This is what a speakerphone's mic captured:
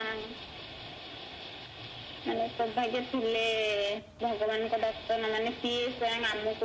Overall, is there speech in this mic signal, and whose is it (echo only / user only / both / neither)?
echo only